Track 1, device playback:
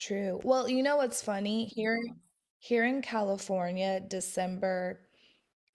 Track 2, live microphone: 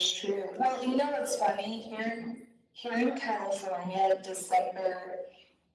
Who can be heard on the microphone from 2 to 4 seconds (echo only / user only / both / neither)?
echo only